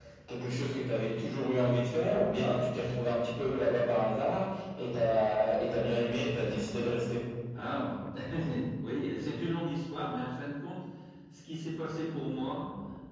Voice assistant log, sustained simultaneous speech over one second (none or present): none